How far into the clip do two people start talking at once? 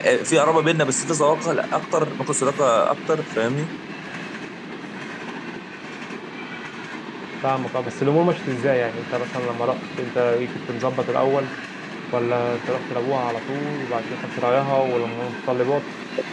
none

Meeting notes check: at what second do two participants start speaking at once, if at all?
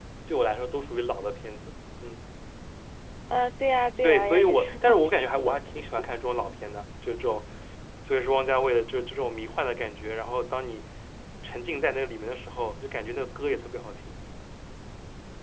4 s

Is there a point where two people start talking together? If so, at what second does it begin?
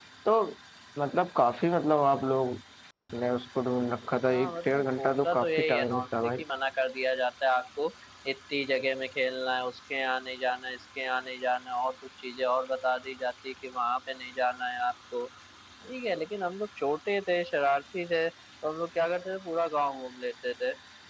4 s

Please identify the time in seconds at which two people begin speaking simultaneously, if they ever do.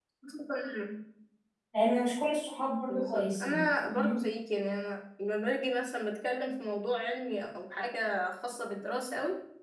3 s

